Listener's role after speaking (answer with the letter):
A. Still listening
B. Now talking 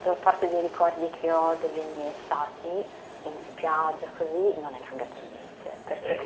B